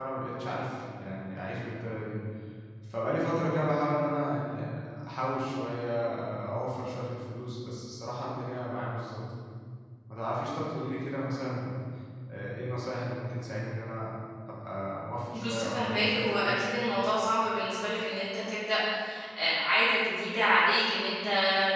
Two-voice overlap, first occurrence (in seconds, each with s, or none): 15.3 s